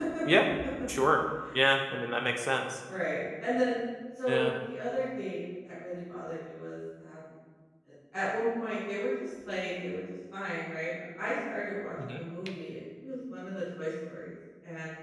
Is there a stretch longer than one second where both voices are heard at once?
No

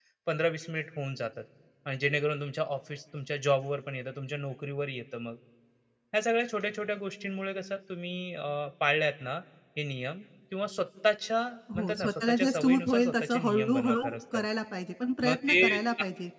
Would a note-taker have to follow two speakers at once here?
Yes, from 11.8 s

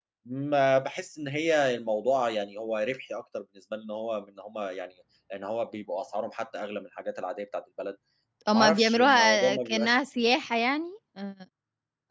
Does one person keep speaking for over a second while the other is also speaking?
Yes, from 8.5 s

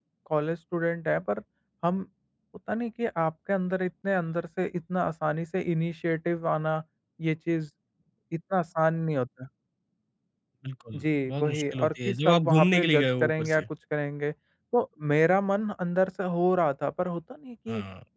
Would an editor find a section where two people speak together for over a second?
Yes, from 11.0 s

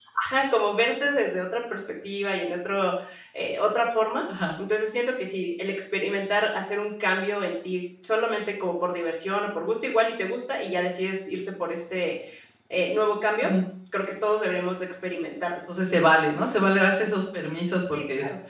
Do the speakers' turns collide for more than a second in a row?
No

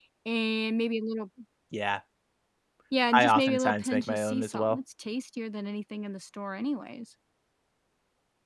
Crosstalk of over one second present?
Yes, from 3.1 s

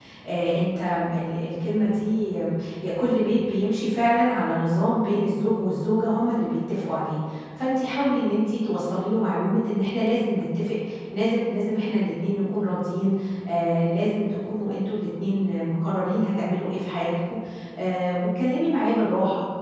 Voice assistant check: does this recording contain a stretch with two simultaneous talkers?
No

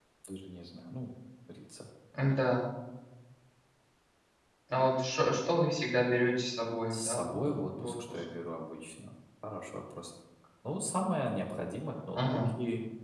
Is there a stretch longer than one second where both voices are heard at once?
Yes, from 6.9 s

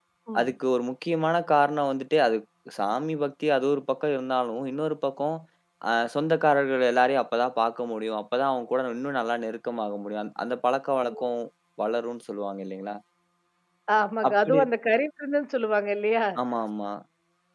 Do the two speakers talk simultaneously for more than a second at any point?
No

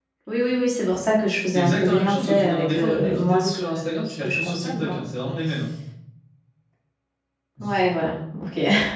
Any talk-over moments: Yes, from 1.5 s

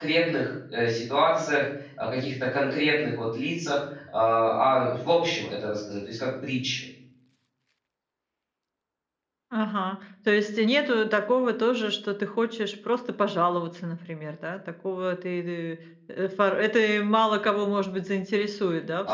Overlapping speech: No

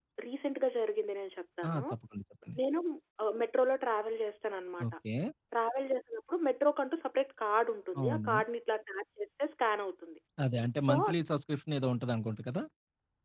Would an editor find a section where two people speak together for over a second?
No

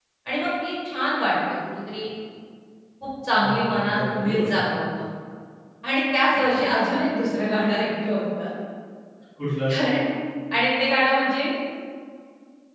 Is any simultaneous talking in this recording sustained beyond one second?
Yes, from 3.4 s

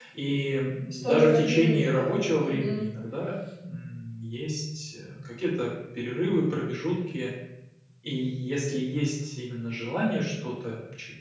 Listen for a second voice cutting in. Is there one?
Yes, from 0.9 s

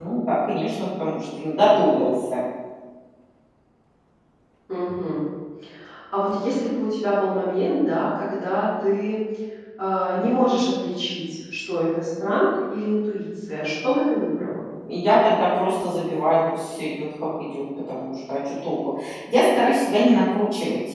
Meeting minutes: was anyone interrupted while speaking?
No

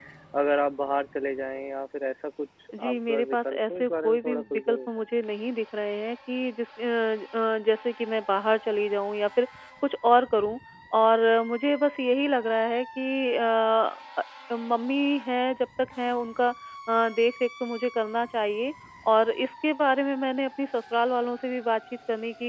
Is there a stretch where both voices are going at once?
Yes, from 2.7 s

